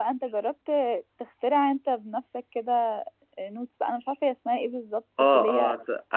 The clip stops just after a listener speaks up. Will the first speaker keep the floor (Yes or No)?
No